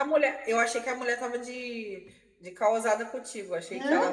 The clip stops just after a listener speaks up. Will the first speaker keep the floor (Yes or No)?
No